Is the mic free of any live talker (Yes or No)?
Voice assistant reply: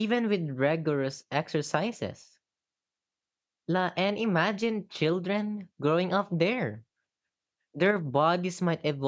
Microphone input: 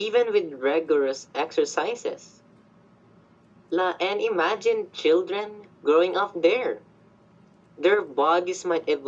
Yes